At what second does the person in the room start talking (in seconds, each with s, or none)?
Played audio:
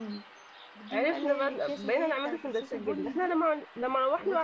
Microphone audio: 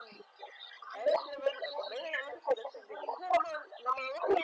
none